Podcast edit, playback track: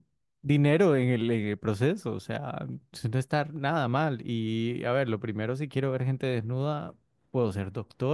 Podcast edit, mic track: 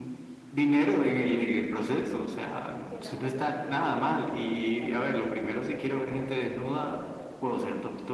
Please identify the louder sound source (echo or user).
echo